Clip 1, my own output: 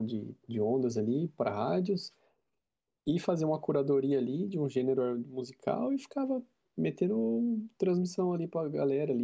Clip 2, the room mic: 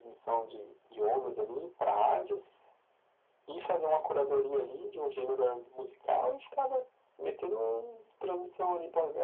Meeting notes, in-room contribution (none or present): none